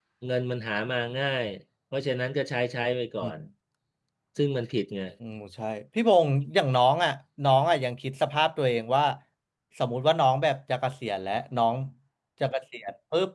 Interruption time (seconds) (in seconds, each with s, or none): none